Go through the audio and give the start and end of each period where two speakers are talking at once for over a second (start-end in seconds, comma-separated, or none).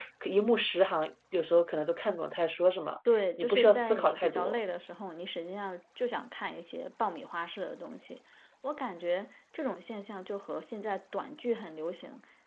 3.4-4.6